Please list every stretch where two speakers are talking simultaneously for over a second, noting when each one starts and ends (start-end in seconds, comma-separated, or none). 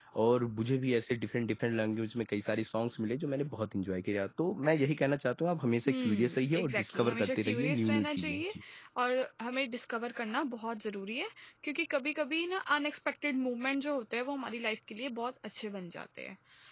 5.9-8.5